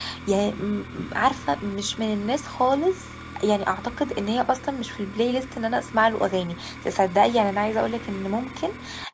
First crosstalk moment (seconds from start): none

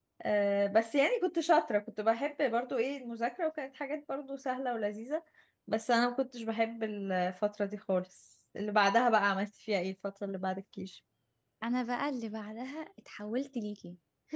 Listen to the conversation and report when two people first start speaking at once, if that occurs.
none

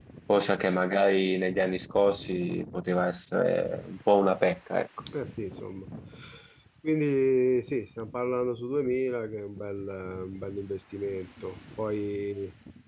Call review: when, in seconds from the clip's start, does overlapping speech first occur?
none

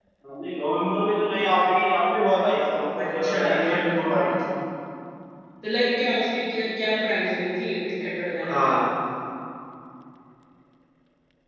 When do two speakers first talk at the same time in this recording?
3 s

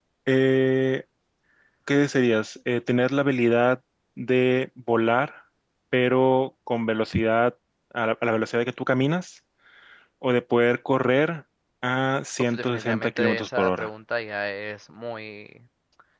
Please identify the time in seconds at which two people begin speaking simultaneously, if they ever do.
12 s

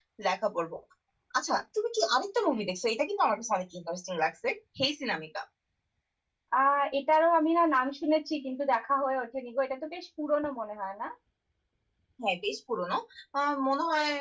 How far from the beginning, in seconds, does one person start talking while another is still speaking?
none

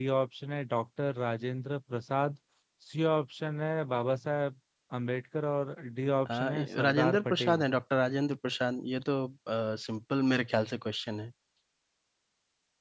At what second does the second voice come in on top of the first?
6 s

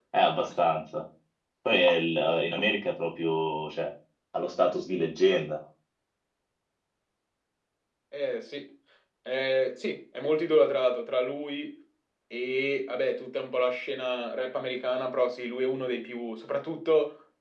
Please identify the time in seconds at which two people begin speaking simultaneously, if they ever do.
none

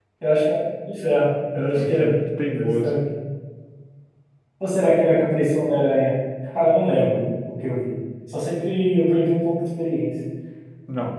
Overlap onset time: 2 s

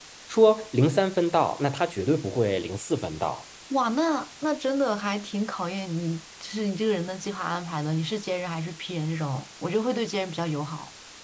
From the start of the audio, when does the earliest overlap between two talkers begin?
none

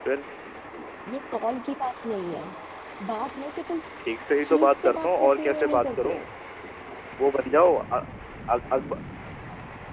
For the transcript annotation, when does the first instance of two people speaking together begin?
4 s

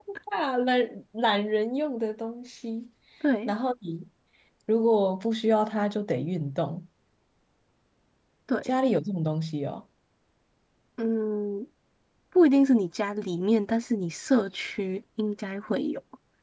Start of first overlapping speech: none

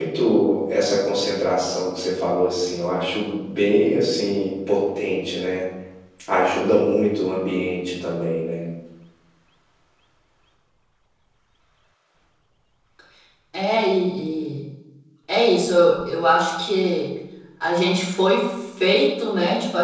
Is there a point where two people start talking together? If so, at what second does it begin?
none

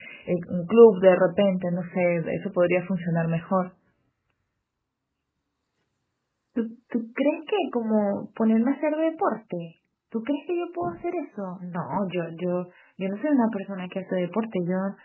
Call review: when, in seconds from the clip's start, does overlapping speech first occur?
none

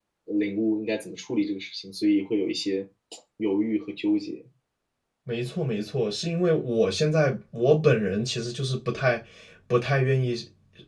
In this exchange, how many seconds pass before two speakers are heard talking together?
none

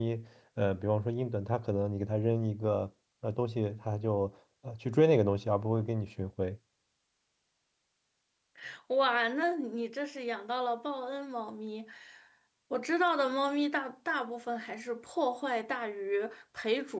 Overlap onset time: none

